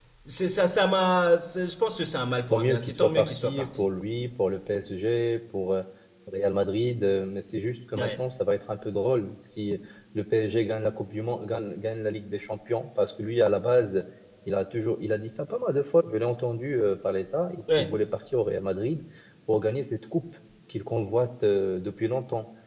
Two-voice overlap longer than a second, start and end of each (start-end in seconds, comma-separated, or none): 2.5-3.9